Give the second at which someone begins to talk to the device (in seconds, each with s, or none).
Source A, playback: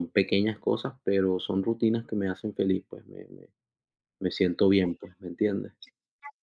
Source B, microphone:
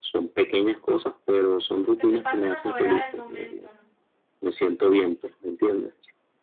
1.5 s